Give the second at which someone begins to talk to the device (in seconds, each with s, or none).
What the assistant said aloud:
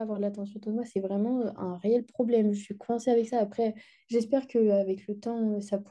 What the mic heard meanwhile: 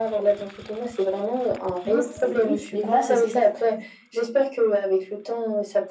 1.8 s